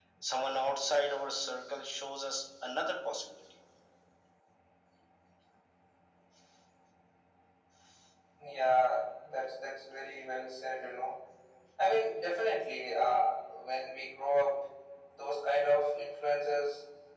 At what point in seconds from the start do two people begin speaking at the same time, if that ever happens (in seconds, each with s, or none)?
none